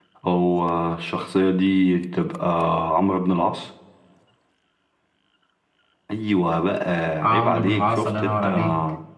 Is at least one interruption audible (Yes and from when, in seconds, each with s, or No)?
Yes, from 7.2 s